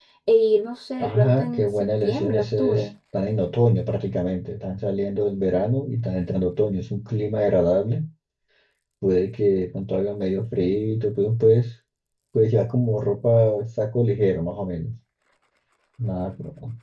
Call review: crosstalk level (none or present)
present